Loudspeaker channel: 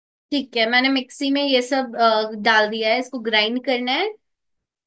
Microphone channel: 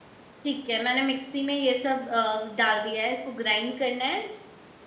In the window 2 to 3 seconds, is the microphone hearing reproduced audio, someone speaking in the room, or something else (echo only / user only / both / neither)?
echo only